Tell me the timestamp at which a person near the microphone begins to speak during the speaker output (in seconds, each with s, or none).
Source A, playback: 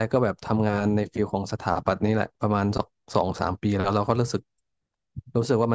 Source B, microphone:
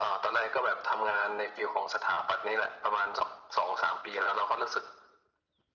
none